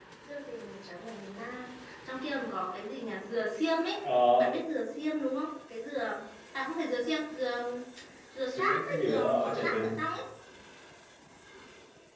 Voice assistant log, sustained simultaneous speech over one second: present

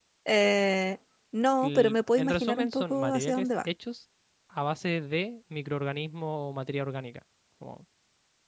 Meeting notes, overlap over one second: present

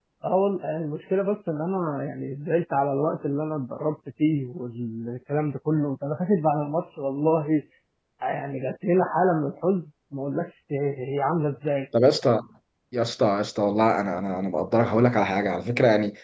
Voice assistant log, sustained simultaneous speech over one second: none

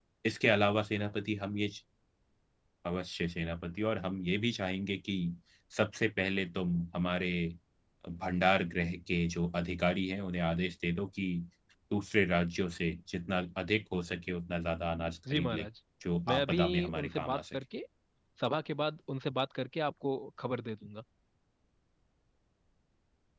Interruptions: present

